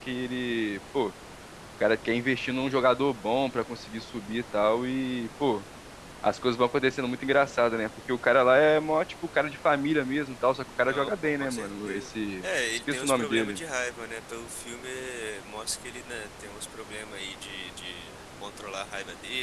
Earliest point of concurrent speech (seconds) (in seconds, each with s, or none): 10.8 s